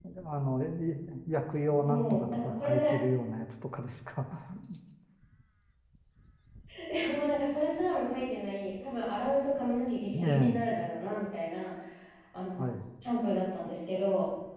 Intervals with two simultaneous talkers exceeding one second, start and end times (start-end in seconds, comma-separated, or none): 1.7-3.0